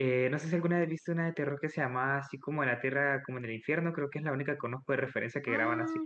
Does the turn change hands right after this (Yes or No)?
Yes